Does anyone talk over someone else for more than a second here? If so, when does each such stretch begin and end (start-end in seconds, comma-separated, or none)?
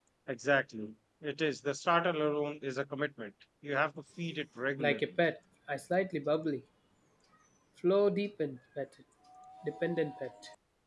none